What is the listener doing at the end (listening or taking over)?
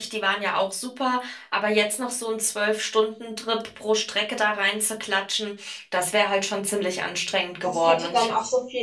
taking over